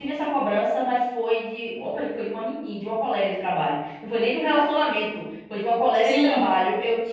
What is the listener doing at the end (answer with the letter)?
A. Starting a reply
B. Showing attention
B